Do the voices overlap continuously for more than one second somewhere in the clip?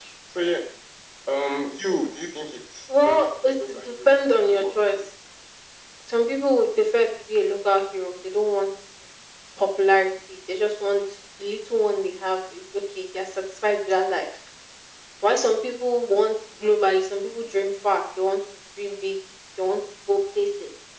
Yes, from 2.9 s

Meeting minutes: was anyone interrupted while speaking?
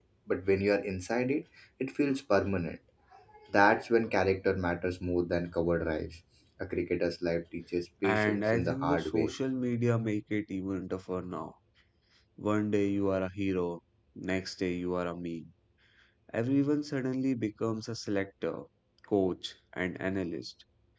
Yes, from 8.0 s

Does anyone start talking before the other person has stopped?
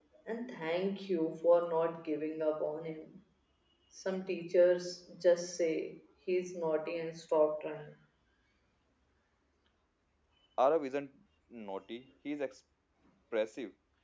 No

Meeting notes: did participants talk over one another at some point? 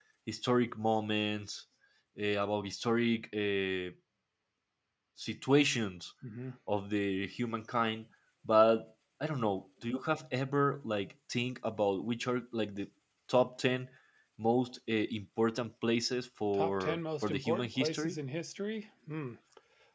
Yes, from 16.5 s

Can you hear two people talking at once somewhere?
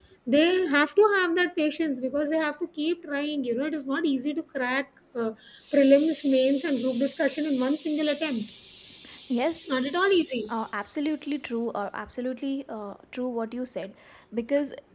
No

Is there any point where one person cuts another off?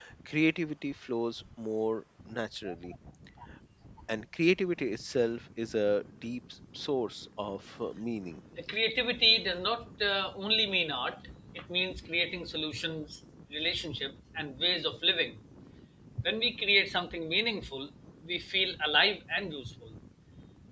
No

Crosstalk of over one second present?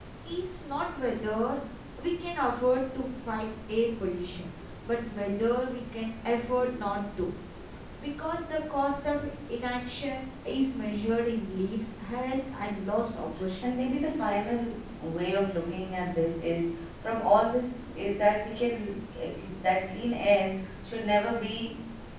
No

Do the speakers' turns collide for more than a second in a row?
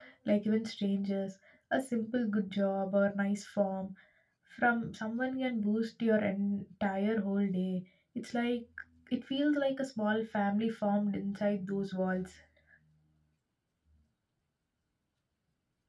No

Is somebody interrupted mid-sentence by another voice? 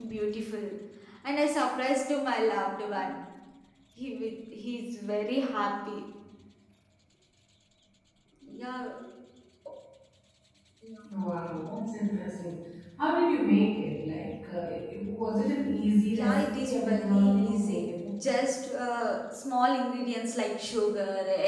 Yes, from 16.1 s

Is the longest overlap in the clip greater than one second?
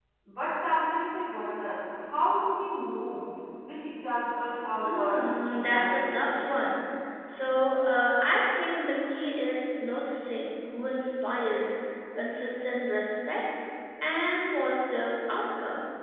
Yes, from 4.8 s

